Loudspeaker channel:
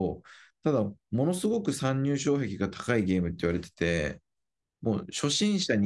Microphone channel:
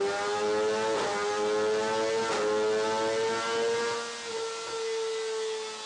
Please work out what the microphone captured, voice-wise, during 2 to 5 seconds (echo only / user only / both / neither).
neither